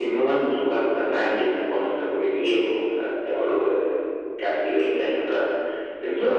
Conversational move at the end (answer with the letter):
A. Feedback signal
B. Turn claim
B